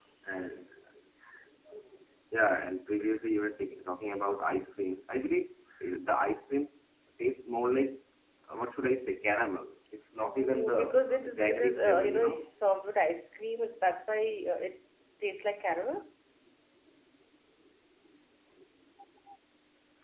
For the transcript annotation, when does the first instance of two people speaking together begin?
10.2 s

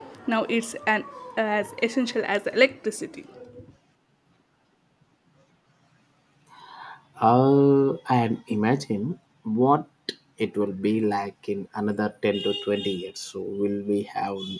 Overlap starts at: none

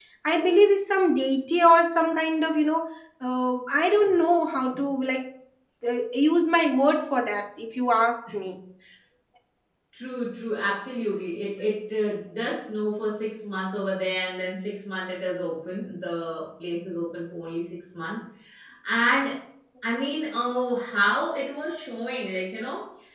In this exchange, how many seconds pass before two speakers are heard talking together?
none

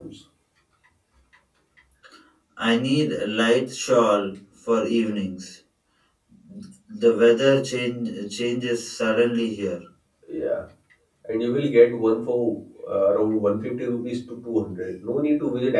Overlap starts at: none

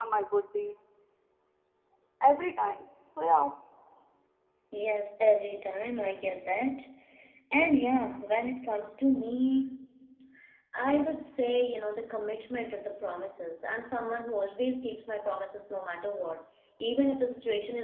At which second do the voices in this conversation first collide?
none

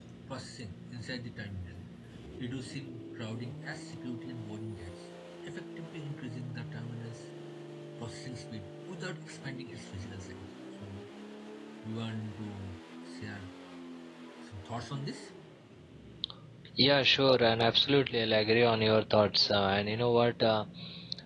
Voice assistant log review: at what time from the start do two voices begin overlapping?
none

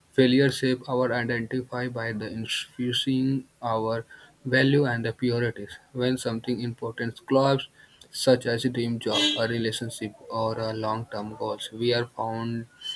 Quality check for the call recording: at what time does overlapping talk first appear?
none

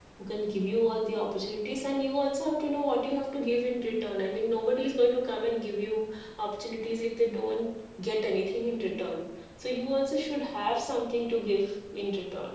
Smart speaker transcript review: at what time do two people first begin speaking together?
none

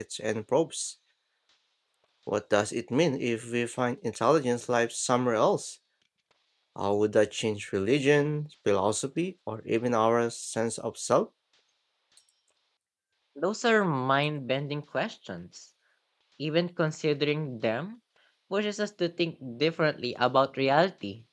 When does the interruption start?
none

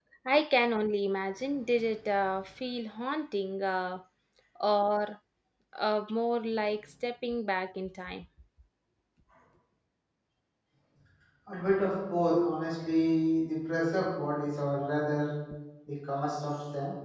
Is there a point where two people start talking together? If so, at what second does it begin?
none

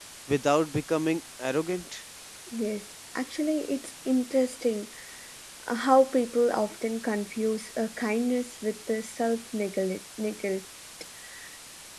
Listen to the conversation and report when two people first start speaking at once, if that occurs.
none

